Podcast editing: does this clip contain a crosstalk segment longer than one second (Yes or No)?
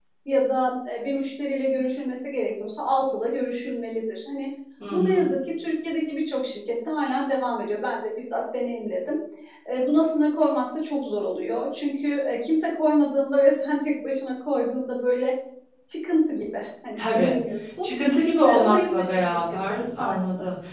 Yes